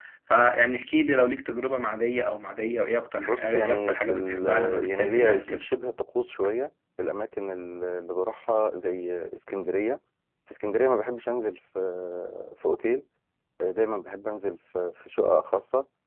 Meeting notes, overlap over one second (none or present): present